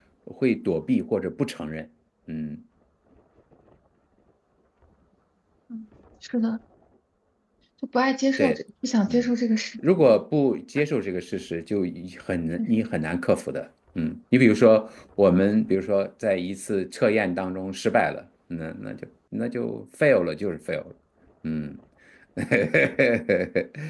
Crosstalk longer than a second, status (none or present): none